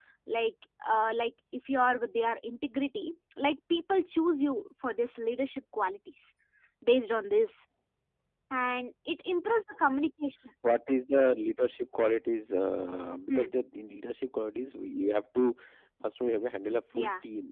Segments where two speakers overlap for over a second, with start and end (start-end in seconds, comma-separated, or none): none